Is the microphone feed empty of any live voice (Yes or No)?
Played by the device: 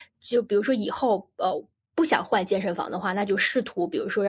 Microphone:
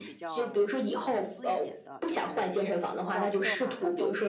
No